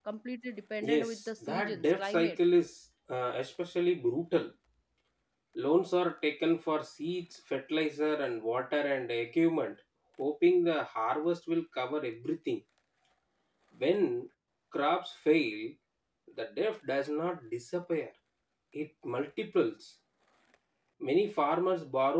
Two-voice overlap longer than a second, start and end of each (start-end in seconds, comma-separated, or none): 0.8-2.4